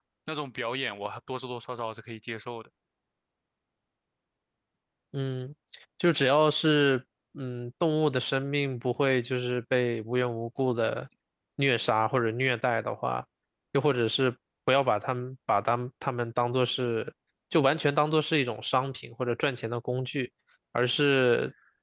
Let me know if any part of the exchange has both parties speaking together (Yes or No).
No